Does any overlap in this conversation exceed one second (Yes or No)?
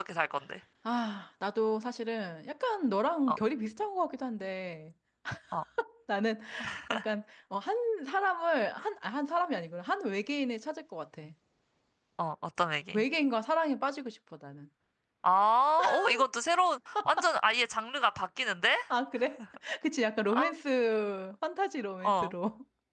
No